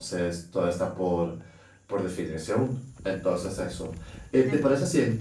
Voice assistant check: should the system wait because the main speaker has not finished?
Yes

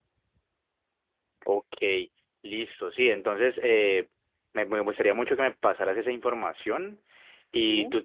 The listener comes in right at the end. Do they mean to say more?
No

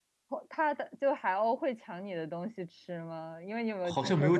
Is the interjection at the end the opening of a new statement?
Yes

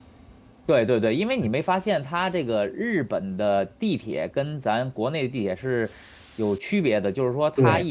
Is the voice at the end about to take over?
No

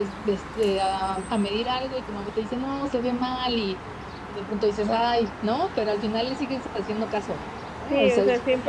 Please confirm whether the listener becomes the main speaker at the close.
Yes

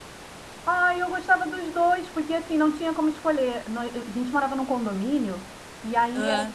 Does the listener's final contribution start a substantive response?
No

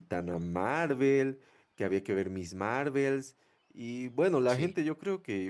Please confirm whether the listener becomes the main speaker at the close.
No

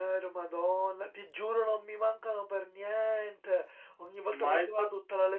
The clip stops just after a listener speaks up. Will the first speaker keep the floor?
Yes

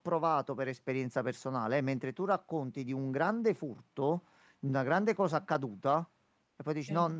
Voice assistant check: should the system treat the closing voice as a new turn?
No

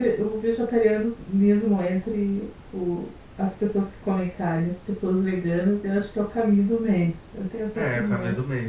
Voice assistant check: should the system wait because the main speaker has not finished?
No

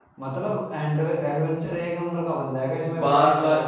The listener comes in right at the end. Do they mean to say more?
Yes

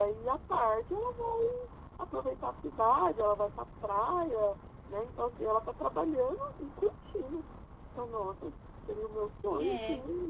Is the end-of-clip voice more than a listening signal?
Yes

